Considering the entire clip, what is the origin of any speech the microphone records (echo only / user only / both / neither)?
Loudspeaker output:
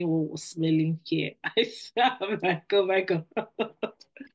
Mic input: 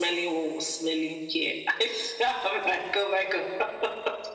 echo only